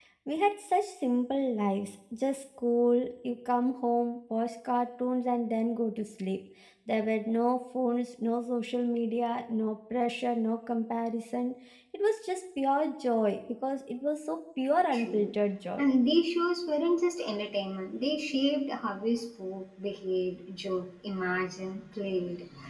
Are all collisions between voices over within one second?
Yes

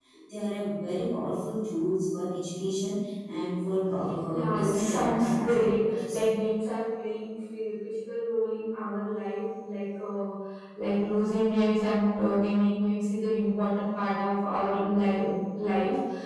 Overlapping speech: Yes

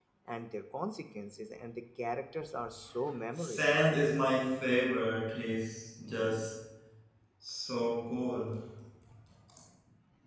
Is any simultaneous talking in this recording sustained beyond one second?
No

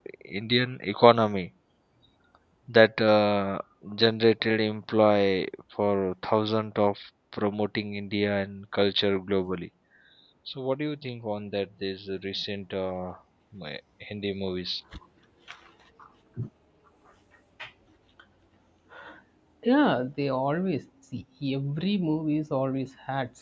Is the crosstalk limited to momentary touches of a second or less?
Yes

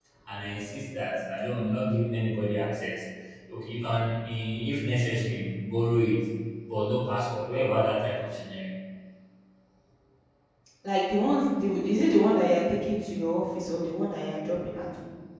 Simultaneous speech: No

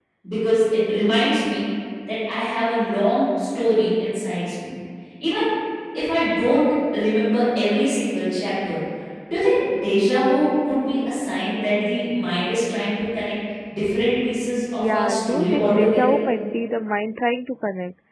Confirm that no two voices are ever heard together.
No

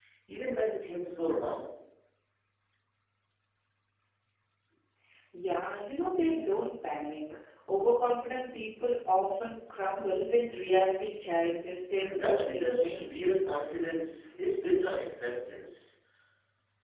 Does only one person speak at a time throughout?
No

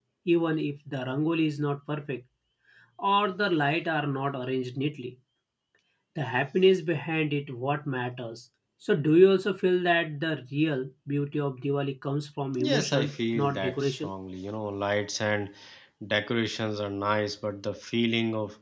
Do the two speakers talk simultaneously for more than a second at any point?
Yes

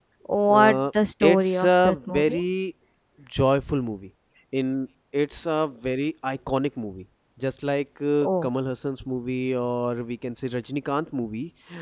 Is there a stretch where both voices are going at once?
Yes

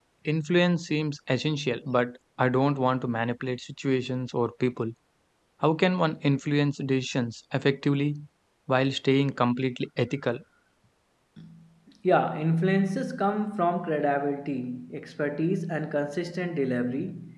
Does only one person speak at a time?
Yes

